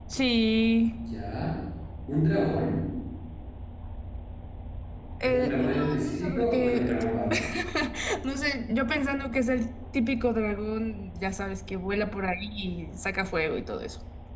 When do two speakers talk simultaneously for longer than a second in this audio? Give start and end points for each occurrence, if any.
5.2-6.9

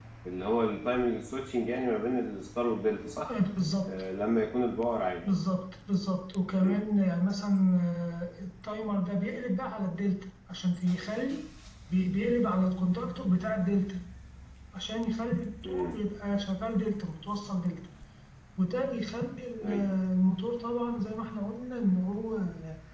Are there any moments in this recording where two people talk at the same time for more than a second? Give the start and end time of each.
none

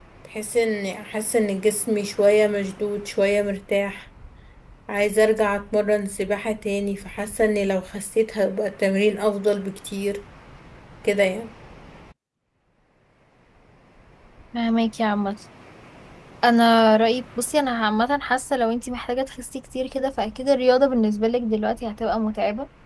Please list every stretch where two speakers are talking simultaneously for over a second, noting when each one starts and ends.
none

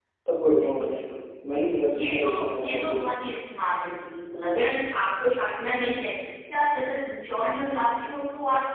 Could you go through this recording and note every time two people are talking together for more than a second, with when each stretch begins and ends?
1.5-3.1

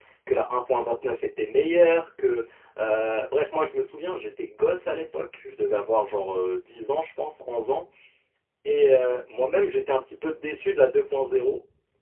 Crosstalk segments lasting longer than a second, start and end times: none

